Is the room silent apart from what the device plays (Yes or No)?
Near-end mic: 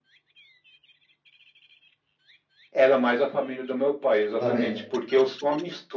No